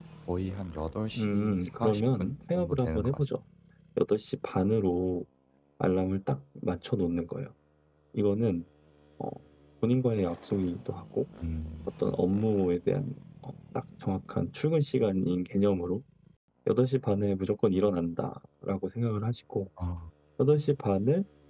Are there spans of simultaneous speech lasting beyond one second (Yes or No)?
Yes